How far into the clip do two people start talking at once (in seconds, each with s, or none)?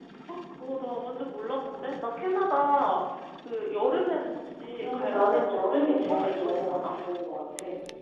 4.8 s